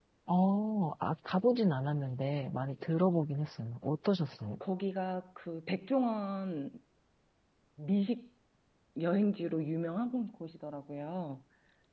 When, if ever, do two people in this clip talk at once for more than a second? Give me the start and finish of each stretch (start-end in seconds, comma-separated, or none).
none